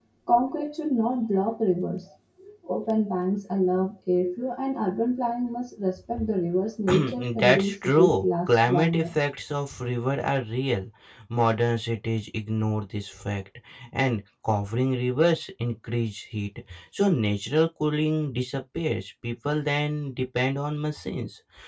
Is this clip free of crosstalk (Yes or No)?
No